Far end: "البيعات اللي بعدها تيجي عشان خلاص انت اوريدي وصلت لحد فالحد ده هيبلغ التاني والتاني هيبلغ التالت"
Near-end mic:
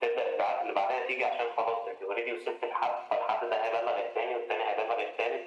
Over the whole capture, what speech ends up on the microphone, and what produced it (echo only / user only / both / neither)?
echo only